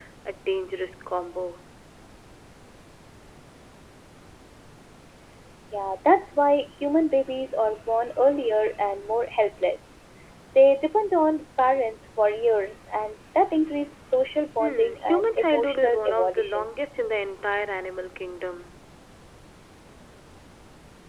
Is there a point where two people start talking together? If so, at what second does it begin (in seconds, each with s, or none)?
14.6 s